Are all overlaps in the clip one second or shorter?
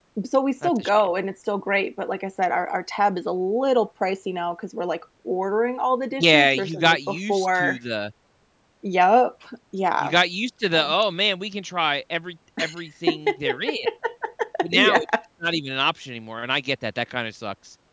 No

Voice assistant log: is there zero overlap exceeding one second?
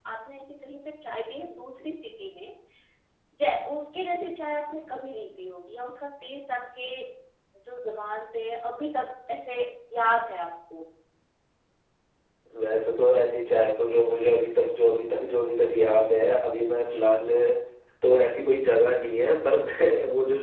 Yes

